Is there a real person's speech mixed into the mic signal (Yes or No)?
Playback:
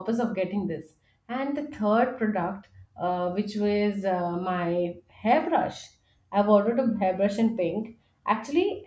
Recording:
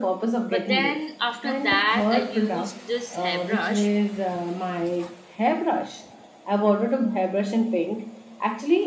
Yes